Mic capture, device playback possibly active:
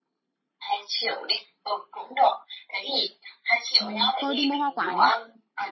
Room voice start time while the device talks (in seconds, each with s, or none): 3.8 s